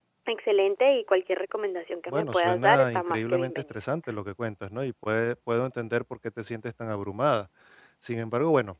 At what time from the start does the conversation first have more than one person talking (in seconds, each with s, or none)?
2.1 s